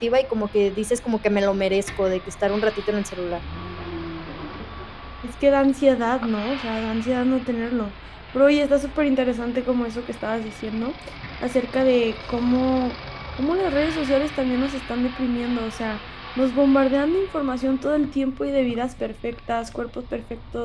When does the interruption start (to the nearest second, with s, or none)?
none